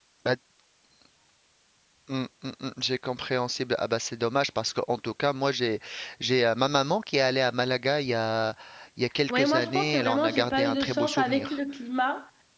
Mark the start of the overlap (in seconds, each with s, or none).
9.3 s